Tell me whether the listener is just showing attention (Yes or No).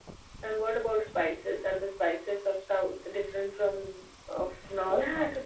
No